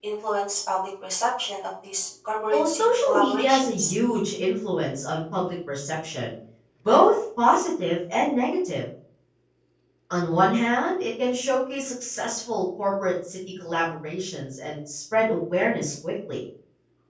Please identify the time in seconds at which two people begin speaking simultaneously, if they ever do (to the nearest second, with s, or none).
3 s